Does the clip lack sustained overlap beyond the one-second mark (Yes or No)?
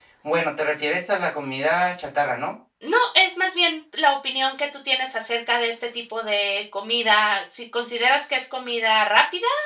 Yes